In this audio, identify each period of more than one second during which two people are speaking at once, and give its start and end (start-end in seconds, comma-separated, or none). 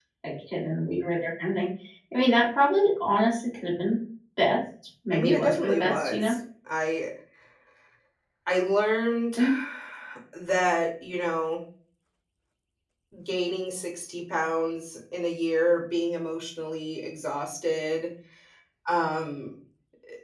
5.1-6.3